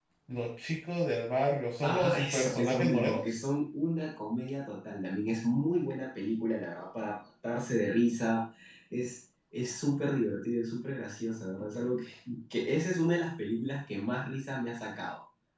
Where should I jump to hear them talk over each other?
1.8 s

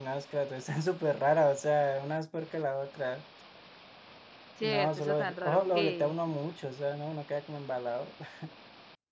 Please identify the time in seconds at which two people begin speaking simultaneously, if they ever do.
4.6 s

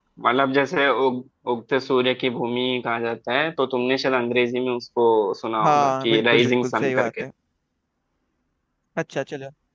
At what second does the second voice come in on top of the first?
5.6 s

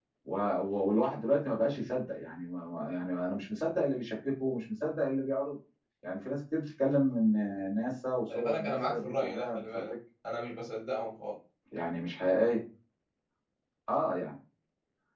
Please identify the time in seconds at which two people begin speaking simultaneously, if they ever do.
8.3 s

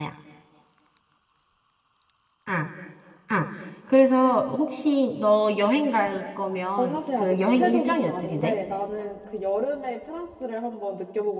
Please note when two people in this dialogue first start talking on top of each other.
6.8 s

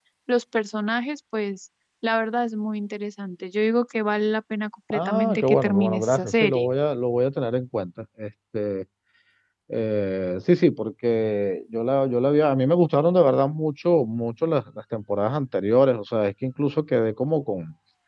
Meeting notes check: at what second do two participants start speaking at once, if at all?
4.9 s

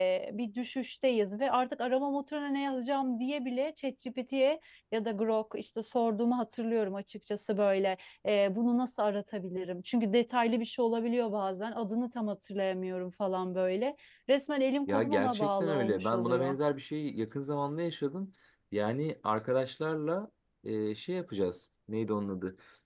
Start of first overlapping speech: 14.9 s

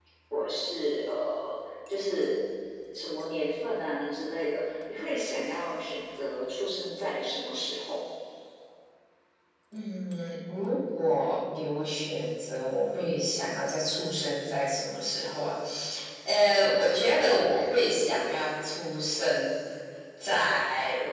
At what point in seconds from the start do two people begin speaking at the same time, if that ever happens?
none

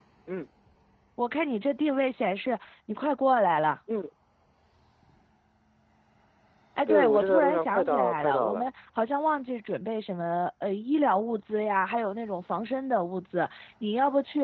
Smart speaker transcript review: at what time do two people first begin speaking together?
6.9 s

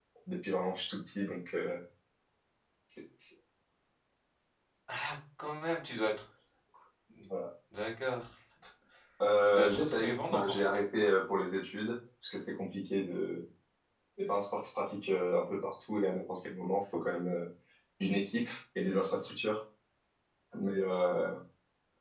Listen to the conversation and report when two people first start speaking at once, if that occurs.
9.5 s

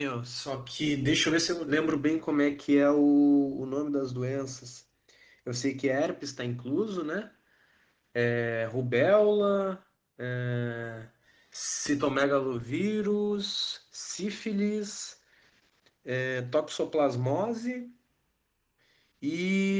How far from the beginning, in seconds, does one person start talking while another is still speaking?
none

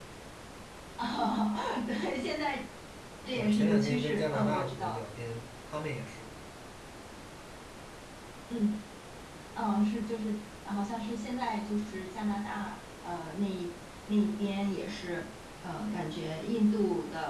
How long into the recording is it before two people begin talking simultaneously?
3.3 s

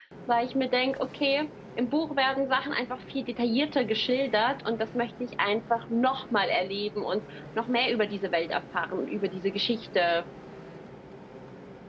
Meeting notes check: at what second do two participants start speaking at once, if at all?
none

